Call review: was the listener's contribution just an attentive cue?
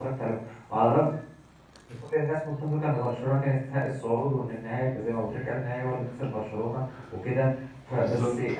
Yes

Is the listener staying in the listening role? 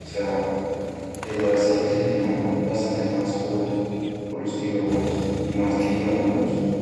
Yes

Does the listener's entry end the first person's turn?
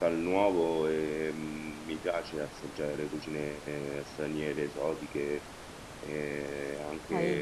Yes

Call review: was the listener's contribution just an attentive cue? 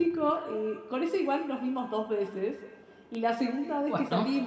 Yes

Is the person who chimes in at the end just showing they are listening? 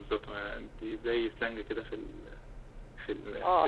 No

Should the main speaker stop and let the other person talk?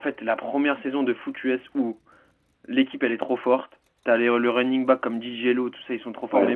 No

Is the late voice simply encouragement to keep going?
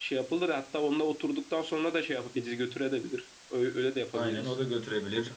No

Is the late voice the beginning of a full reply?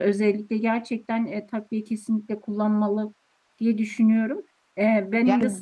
No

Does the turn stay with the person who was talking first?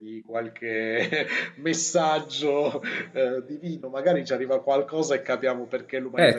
No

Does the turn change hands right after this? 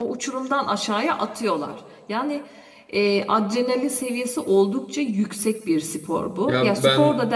No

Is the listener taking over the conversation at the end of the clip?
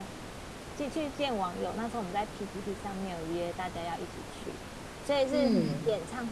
No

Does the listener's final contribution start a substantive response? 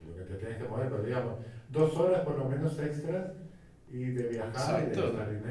Yes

